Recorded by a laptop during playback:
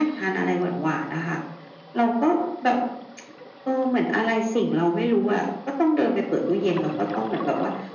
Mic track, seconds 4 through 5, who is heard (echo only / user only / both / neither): echo only